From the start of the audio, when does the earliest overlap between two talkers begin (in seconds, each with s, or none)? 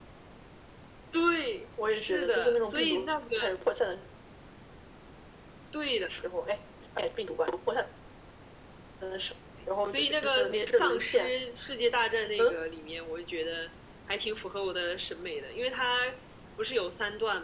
1.9 s